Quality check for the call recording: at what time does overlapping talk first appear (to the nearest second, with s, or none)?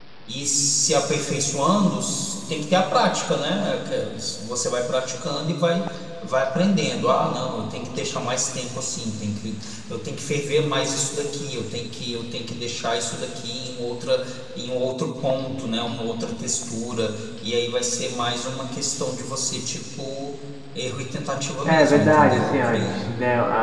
22 s